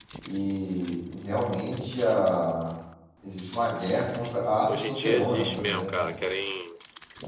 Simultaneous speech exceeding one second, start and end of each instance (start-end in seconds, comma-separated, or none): 4.7-6.1